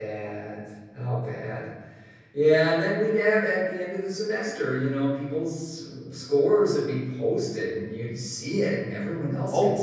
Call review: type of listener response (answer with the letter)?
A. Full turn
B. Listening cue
A